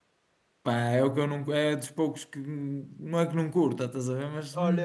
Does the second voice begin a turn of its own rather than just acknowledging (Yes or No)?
Yes